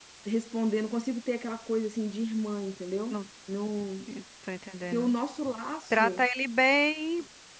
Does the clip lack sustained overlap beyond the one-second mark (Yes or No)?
Yes